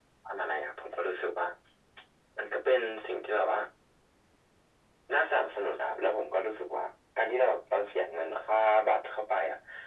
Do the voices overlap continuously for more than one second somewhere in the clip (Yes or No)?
No